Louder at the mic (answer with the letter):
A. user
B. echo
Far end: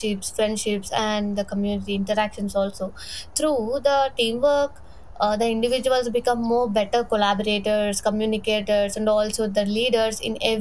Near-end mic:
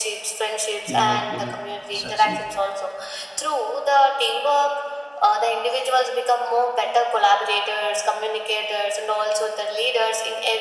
B